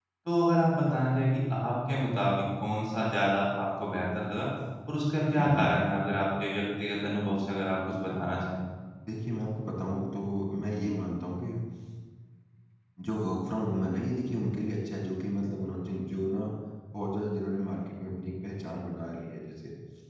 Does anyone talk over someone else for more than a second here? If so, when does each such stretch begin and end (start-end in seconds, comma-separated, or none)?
none